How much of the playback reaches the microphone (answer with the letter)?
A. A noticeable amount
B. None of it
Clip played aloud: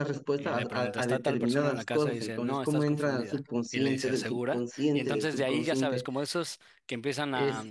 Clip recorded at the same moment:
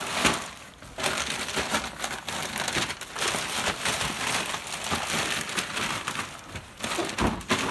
B